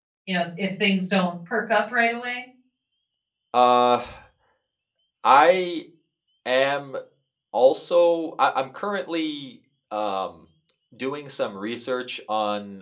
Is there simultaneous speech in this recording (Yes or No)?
No